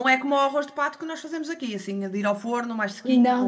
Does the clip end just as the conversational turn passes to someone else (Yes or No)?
Yes